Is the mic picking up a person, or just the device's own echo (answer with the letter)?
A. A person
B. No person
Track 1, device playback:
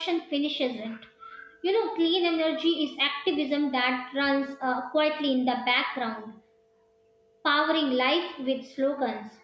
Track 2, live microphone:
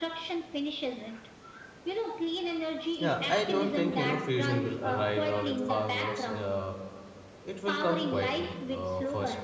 A